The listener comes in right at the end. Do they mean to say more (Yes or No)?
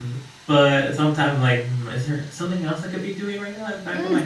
Yes